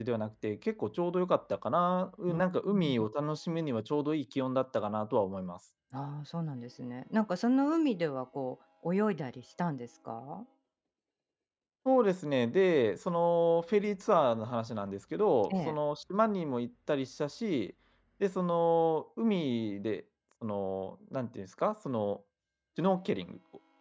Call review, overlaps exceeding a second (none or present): none